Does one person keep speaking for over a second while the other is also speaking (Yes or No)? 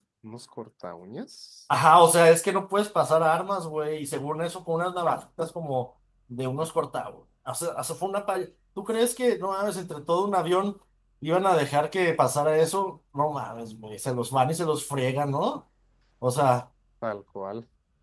No